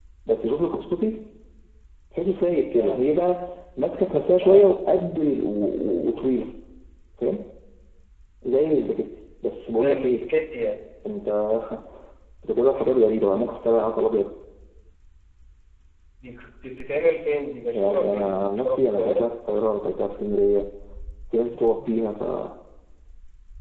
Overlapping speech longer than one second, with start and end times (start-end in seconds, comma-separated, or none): 17.7-19.2